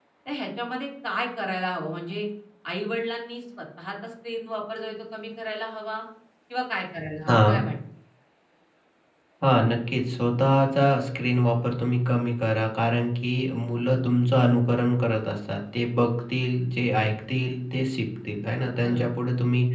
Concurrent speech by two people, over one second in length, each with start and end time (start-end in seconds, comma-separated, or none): none